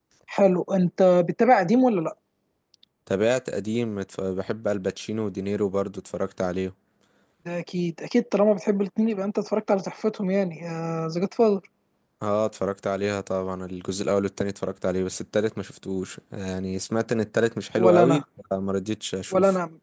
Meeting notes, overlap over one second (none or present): none